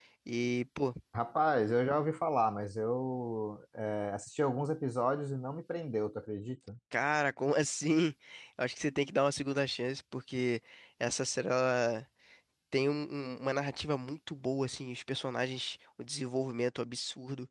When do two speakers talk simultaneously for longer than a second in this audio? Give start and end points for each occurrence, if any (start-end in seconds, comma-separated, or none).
none